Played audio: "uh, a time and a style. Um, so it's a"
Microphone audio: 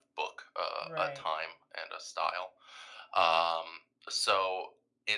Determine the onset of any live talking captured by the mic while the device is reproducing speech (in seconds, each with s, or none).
0.8 s